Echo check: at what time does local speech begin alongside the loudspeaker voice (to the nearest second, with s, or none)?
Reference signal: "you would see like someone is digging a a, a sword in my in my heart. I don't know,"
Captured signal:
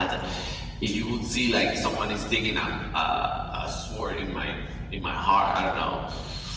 none